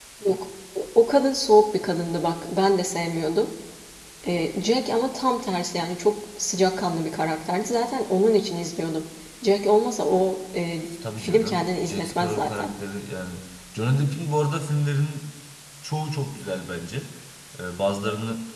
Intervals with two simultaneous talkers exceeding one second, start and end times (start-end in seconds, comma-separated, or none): 11.2-12.7